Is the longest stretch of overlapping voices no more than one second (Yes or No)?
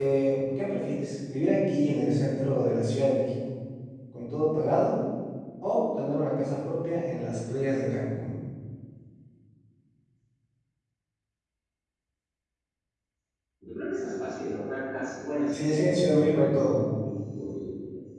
No